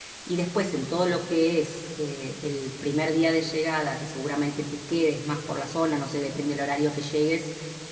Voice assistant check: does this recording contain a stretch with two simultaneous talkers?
No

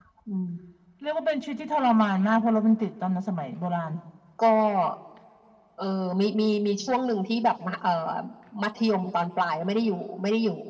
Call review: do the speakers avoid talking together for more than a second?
Yes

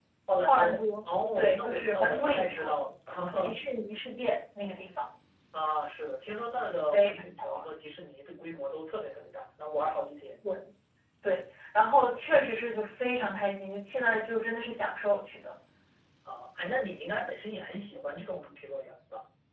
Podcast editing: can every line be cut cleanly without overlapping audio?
No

